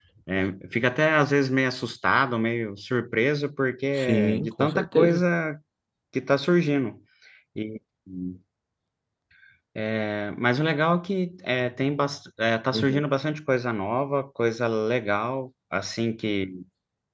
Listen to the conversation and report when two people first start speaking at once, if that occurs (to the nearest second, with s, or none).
4 s